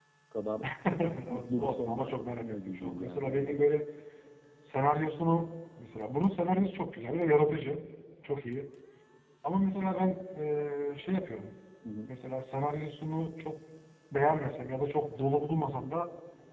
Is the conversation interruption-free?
No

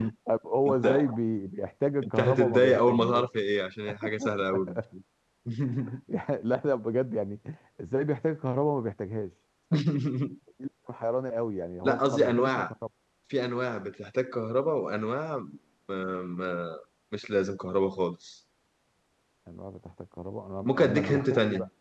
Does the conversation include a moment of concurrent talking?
Yes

